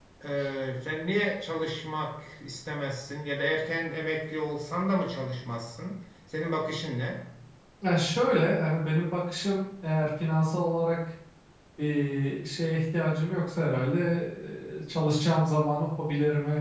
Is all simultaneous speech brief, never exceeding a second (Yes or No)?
Yes